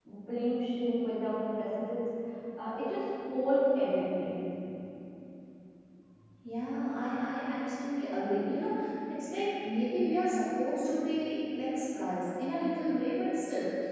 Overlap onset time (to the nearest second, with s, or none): none